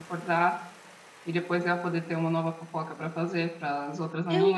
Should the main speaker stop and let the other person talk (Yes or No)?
Yes